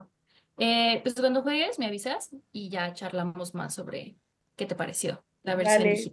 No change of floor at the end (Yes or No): No